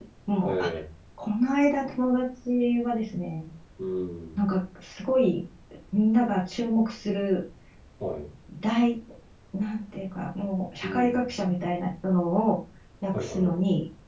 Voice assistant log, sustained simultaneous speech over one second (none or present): none